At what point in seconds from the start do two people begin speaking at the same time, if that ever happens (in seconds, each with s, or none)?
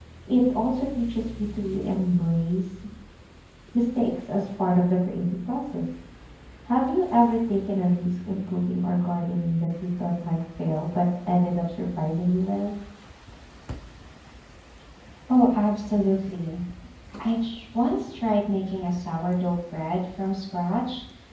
none